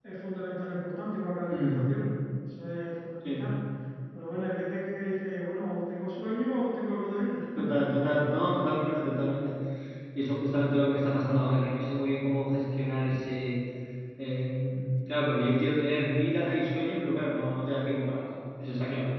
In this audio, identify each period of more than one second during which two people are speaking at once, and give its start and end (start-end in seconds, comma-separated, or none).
none